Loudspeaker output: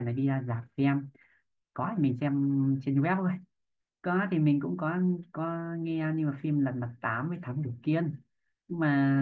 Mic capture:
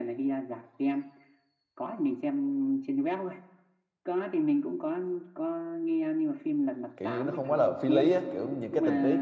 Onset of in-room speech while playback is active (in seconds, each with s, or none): 7.0 s